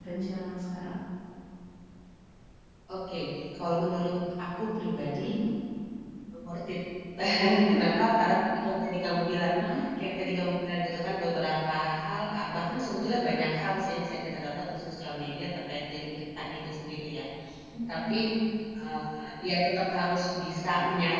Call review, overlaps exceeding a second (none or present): none